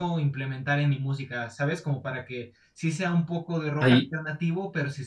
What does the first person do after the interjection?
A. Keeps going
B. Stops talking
A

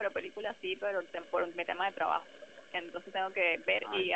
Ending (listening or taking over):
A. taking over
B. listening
B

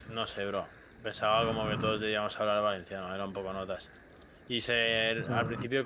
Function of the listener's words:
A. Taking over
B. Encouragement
B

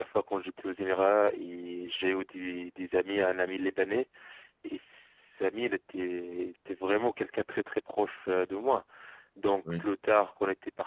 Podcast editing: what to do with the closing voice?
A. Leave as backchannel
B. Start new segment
A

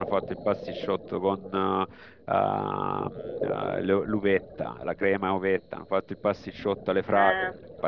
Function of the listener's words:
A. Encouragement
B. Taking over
A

